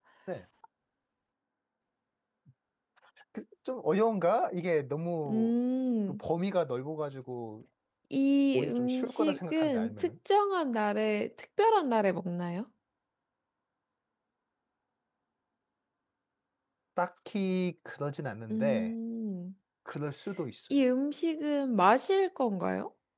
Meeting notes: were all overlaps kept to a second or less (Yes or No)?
No